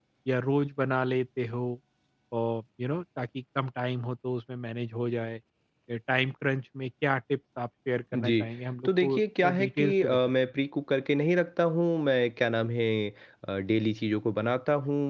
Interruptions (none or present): present